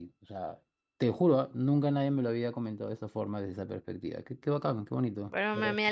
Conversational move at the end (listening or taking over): taking over